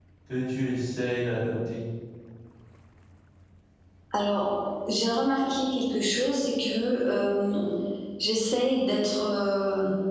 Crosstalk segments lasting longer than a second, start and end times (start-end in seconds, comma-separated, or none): none